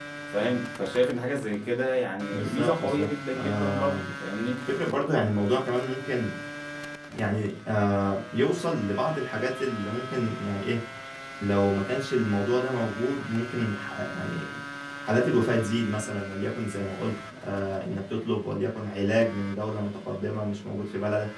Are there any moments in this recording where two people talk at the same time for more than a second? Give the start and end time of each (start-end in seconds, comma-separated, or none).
2.3-4.1